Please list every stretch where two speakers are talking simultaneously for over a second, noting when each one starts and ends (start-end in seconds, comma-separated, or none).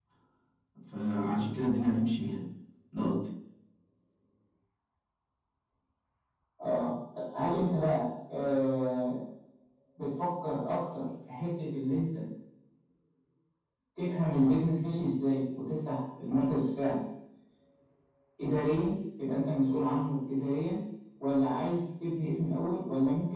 none